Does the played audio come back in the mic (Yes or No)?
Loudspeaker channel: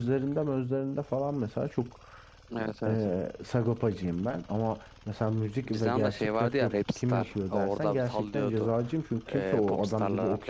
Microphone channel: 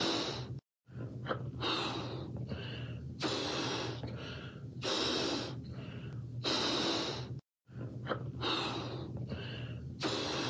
No